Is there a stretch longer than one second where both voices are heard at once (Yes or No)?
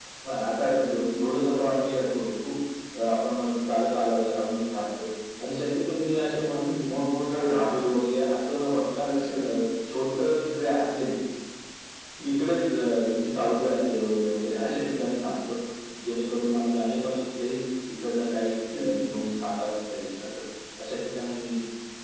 Yes